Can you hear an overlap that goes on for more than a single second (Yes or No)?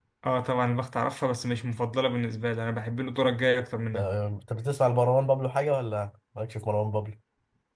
No